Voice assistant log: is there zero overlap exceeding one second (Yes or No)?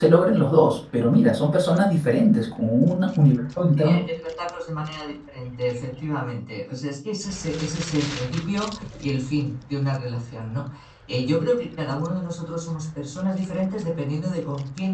Yes